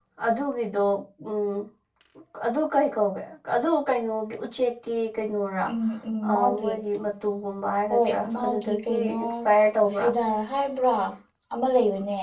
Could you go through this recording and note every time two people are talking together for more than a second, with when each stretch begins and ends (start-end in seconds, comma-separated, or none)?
7.9-9.2